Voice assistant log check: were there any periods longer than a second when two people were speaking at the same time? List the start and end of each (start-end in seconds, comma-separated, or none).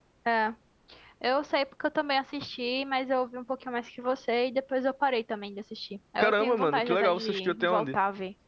6.2-8.0